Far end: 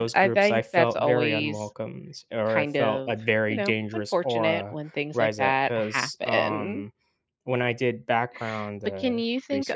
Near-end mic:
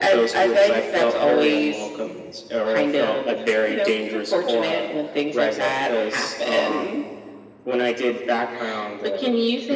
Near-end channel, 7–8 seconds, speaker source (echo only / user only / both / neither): echo only